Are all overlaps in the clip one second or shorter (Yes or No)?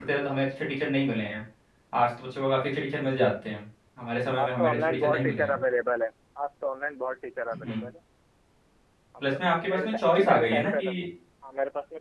No